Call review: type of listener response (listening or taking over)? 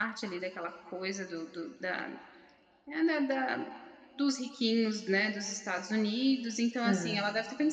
listening